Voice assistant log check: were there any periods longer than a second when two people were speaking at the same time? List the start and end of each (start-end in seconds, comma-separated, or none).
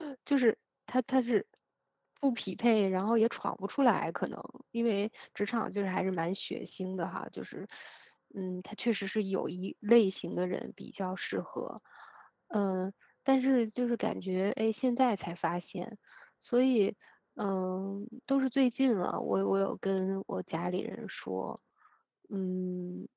none